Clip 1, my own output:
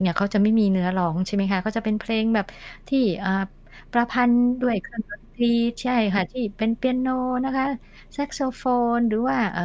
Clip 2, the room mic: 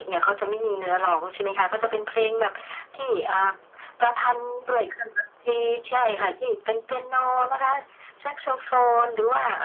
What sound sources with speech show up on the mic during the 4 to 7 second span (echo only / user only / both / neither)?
echo only